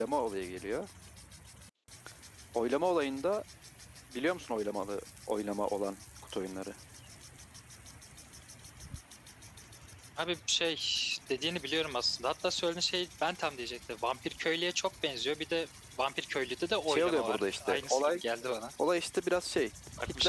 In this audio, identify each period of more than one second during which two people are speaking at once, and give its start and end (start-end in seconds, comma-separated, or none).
16.9-18.2